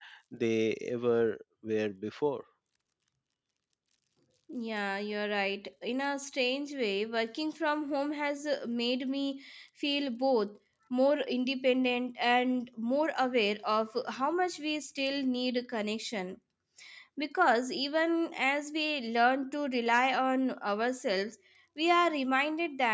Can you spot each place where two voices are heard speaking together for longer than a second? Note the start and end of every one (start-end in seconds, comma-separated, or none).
none